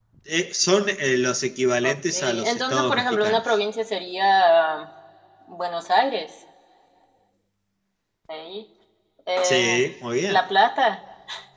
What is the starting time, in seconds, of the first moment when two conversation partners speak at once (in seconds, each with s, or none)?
1.8 s